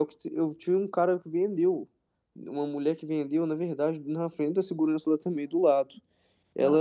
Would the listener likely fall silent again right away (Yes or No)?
Yes